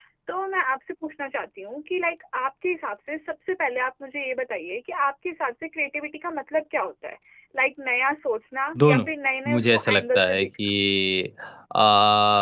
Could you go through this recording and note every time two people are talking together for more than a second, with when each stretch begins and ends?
9.5-10.7

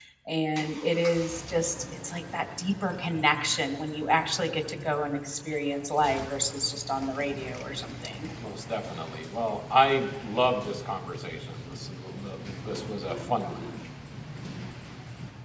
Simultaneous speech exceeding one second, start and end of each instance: none

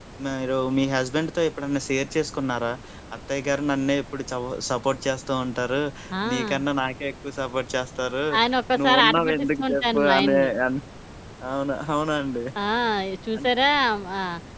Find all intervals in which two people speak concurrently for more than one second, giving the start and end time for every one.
8.8-10.5

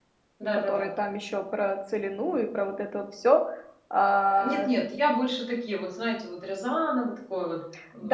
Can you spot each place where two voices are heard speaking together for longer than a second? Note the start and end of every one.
none

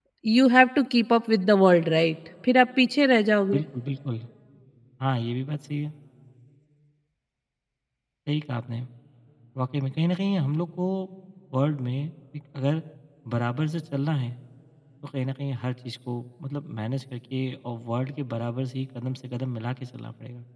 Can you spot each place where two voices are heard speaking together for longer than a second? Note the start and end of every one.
none

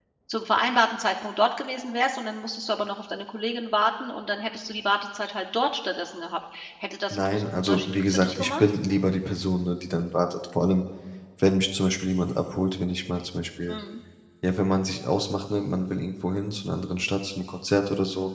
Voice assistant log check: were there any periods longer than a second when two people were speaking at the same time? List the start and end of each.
7.1-8.8

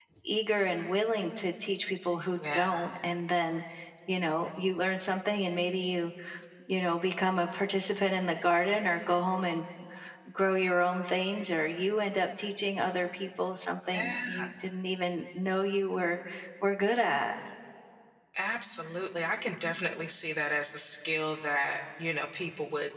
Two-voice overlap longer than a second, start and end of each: none

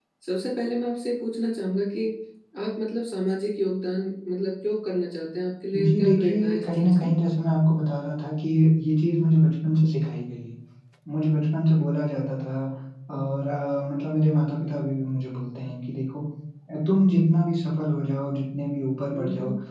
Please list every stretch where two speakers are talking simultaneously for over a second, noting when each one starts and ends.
5.8-7.1

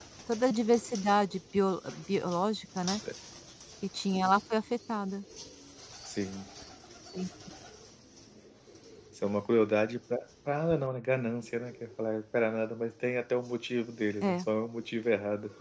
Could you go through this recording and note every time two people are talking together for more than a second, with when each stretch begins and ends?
none

